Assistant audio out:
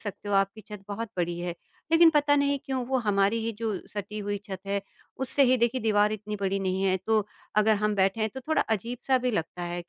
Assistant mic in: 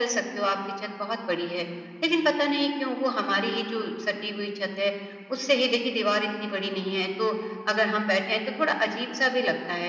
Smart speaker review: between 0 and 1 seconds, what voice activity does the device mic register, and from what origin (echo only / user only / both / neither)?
echo only